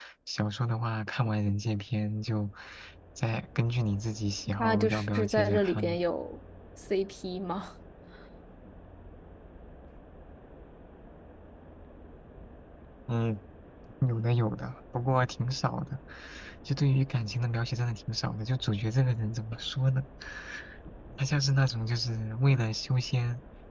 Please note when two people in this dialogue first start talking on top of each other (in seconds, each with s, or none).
4.5 s